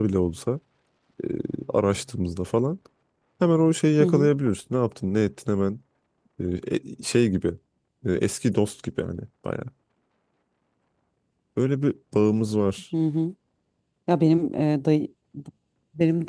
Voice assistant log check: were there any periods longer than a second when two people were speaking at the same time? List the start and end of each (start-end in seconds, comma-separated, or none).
none